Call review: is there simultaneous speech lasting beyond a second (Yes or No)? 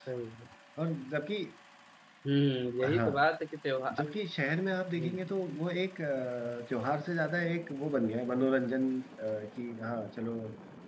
No